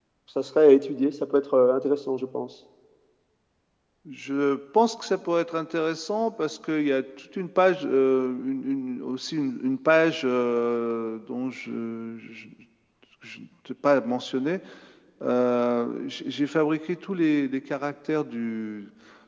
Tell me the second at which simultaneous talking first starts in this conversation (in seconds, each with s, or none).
none